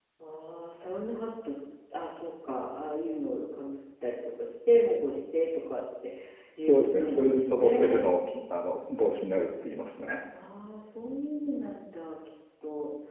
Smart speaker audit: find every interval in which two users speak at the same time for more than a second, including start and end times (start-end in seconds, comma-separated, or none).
6.6-8.0